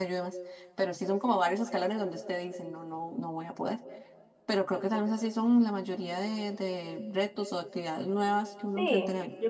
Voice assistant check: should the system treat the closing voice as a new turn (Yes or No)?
Yes